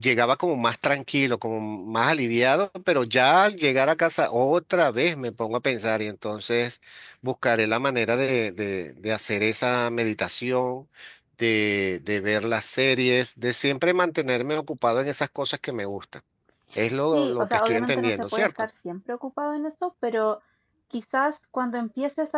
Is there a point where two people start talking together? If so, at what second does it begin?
17.1 s

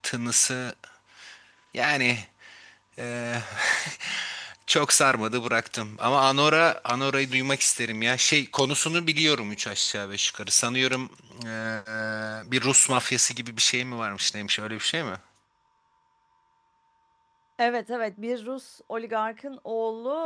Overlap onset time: none

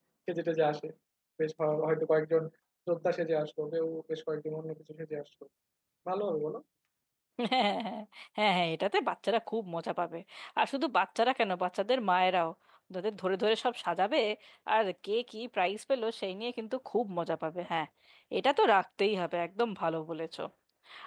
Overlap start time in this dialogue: none

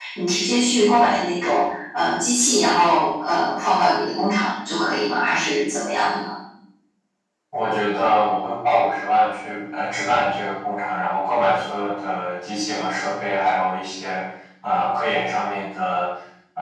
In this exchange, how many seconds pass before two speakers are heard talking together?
none

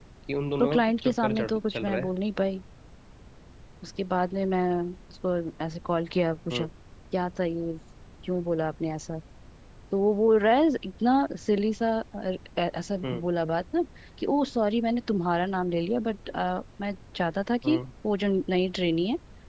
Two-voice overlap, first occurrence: 0.6 s

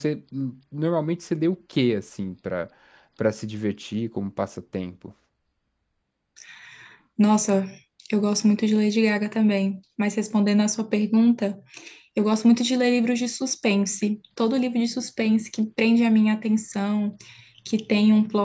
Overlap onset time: none

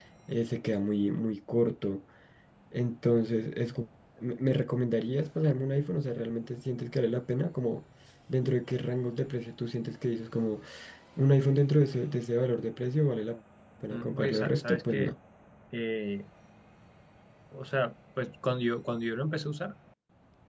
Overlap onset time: 13.9 s

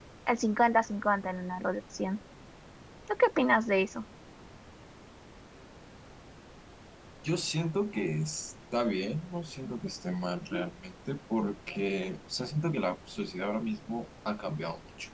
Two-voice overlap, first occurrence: none

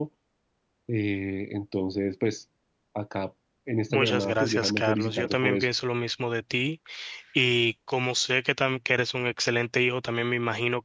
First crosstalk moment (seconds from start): 3.9 s

